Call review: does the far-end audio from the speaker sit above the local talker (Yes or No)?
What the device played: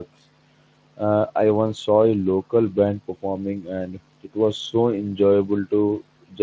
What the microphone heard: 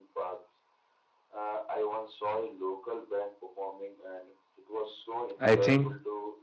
No